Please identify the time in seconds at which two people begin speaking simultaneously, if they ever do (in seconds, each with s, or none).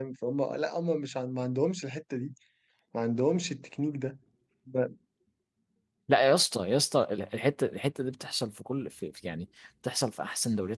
none